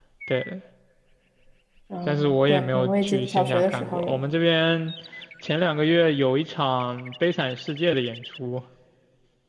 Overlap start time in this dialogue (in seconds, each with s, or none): 2.1 s